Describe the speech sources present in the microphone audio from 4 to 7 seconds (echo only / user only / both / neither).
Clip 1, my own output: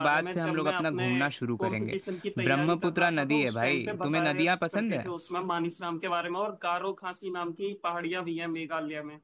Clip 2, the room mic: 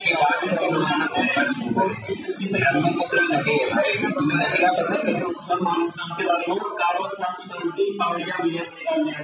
echo only